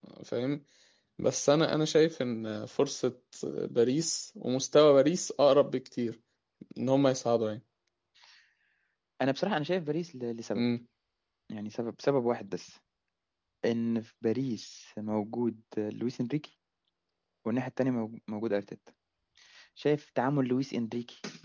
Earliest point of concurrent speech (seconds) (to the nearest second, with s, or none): none